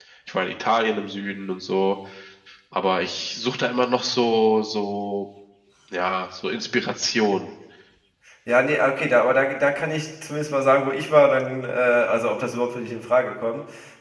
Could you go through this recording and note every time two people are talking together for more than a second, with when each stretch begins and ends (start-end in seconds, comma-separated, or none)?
none